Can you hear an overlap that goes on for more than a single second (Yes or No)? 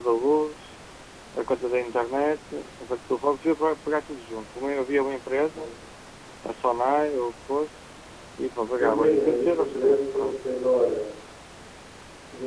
Yes